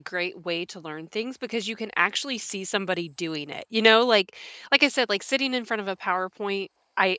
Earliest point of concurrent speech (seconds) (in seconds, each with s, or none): none